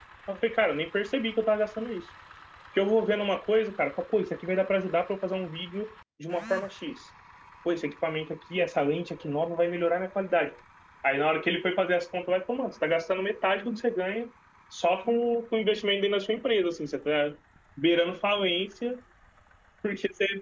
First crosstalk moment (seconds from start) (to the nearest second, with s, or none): none